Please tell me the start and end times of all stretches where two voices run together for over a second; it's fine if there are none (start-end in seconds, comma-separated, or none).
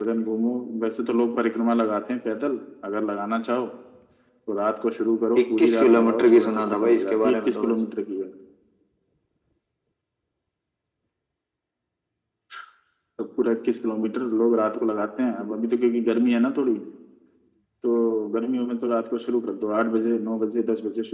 5.4-7.7